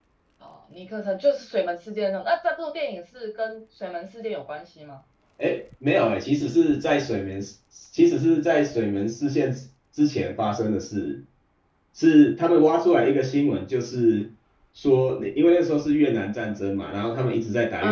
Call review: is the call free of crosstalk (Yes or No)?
Yes